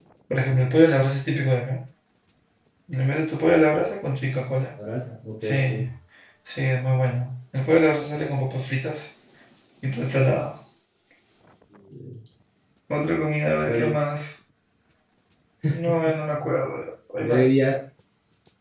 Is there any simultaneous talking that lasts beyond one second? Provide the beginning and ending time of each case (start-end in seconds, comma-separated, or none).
none